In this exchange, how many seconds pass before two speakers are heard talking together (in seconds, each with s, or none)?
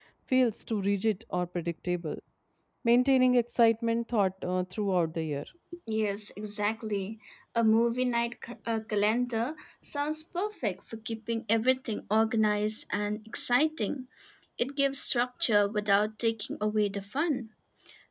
none